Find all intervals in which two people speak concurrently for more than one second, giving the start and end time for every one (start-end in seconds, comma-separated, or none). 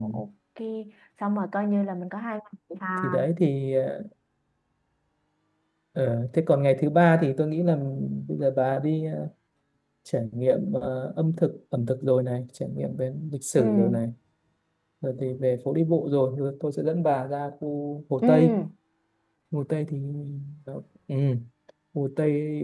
none